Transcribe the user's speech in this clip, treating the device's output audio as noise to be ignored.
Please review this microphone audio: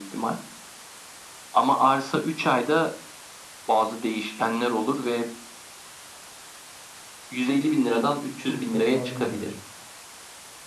iki uçta kaldım ya.

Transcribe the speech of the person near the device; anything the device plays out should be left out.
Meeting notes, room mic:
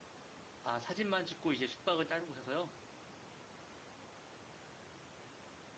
아, 사진만 찍고 이제 숙박은 다른 곳에서요?

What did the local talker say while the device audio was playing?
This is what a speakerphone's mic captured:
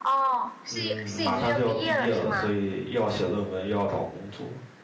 嗯，马上就要毕业了，所以又要写论文，又要找工作，

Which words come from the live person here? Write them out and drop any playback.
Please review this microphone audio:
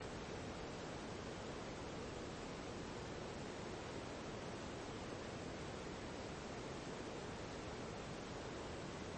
none

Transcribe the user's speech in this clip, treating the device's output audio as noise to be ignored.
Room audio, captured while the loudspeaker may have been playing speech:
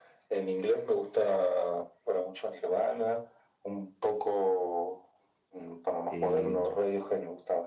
Eh,

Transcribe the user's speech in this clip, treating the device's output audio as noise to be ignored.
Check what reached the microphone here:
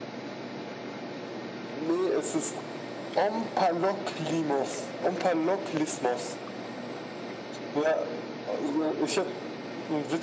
none

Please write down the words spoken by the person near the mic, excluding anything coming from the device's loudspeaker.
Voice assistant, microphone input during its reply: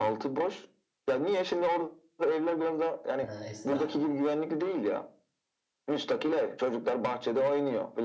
Ha, Esra.

